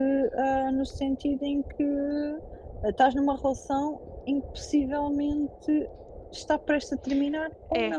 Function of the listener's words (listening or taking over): taking over